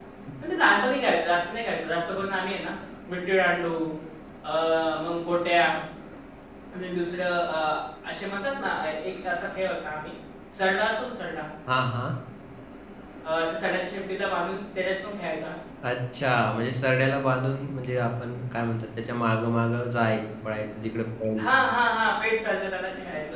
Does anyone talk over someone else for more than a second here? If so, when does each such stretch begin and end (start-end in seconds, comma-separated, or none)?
none